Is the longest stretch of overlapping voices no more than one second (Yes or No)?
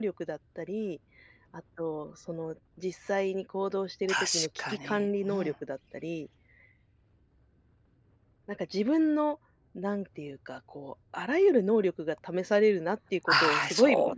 No